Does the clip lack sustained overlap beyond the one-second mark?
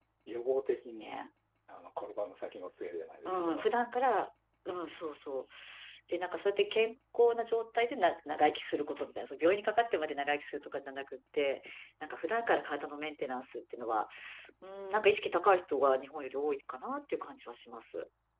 Yes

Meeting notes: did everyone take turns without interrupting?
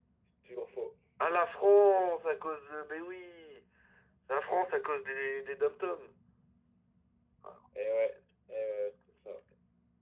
Yes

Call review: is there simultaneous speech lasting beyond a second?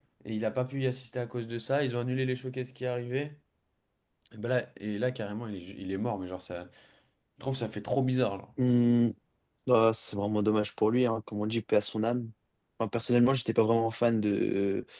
No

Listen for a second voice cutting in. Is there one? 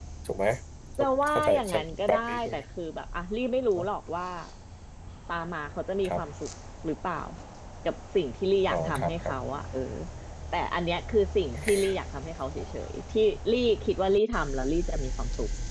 Yes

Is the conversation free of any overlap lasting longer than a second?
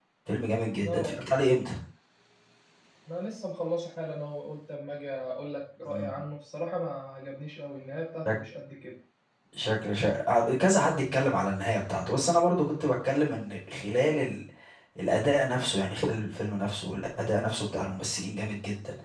Yes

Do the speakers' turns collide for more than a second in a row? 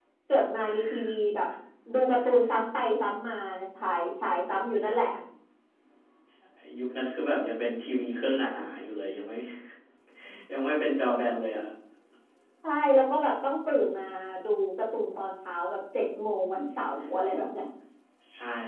No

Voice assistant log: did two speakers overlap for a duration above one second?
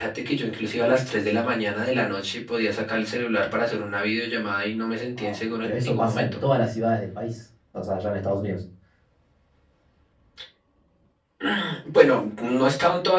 Yes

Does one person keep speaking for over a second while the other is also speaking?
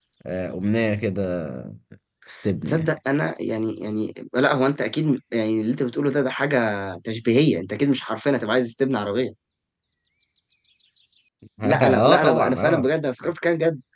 Yes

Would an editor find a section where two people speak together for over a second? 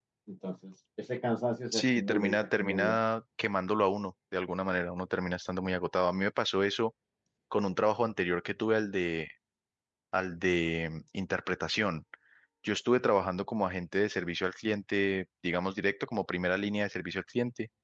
Yes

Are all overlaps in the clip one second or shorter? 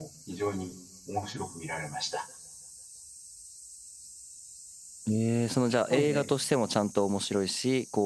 Yes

